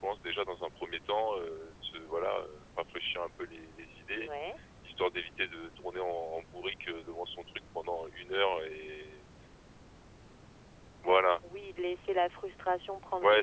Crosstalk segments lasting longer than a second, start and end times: none

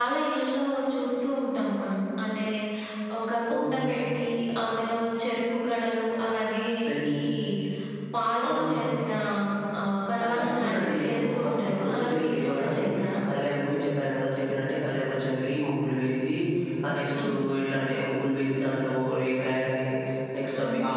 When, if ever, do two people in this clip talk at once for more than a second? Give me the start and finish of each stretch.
10.2-12.8

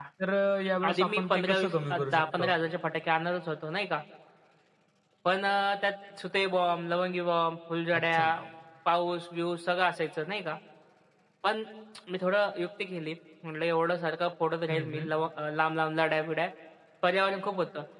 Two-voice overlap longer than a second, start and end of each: 0.9-2.5

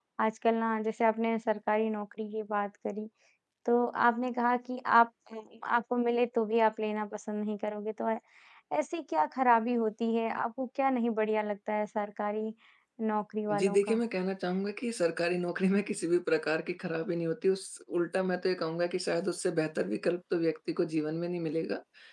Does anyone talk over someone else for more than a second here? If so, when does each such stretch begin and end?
none

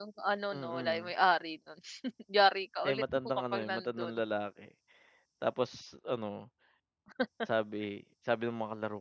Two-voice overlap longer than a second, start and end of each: 2.9-4.1

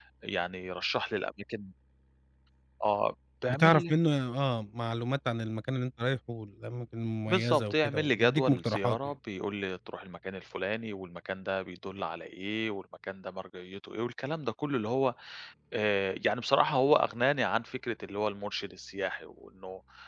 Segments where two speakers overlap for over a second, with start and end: 7.3-9.0

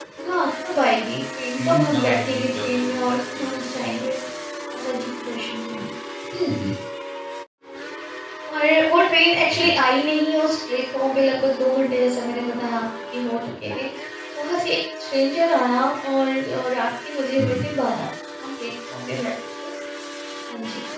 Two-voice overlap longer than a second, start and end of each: 1.6-3.5

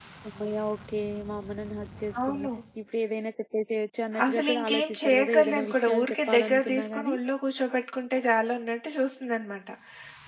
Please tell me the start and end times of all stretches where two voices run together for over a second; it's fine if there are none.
4.2-7.2

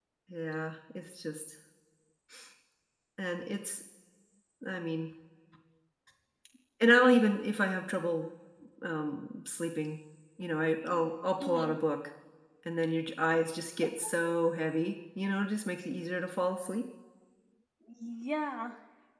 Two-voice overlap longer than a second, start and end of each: none

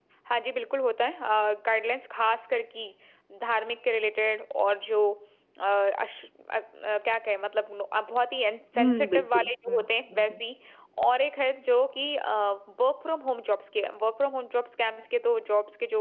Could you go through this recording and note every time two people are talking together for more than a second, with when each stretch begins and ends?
8.8-10.4

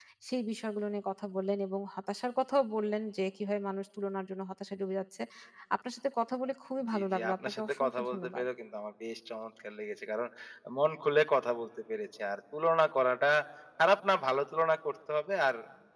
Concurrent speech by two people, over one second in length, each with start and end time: 6.9-8.5

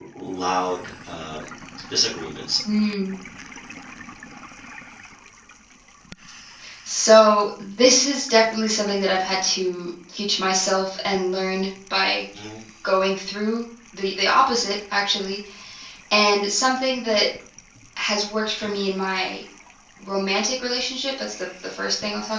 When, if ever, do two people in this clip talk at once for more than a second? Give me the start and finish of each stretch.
none

